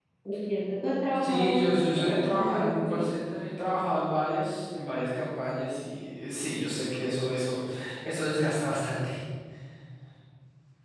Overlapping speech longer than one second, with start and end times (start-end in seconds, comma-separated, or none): 1.2-3.0